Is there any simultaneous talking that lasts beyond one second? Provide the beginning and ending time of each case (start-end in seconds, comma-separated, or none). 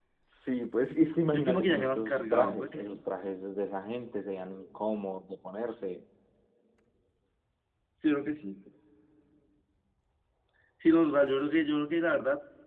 1.3-3.0